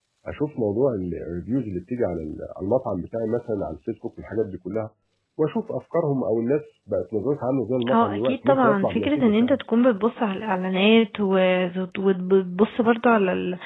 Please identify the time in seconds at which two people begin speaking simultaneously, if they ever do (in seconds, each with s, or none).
7.8 s